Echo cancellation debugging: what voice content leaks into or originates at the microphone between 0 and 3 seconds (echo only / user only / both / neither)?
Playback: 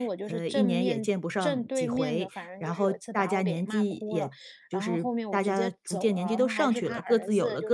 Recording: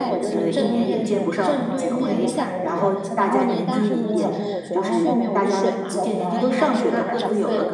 both